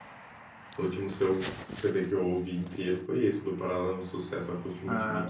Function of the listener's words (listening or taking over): taking over